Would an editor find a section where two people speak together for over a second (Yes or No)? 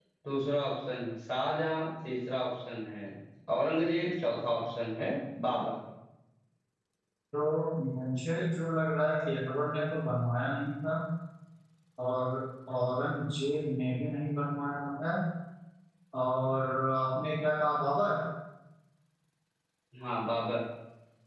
No